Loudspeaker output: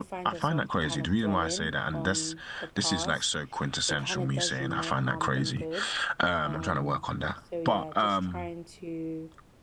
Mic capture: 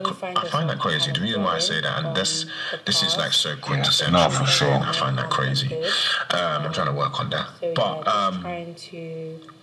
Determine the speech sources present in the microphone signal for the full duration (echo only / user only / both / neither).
both